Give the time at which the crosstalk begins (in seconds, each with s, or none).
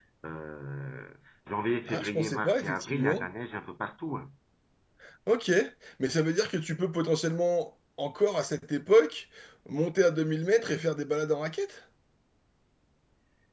1.9 s